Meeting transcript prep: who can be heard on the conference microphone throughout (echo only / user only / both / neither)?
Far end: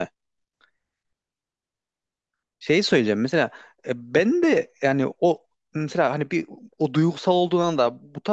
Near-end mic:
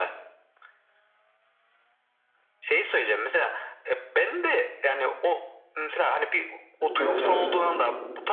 both